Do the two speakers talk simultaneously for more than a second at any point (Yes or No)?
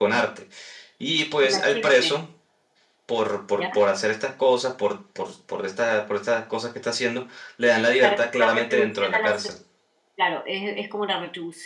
Yes